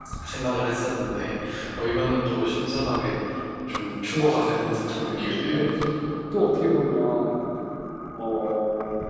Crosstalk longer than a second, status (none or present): none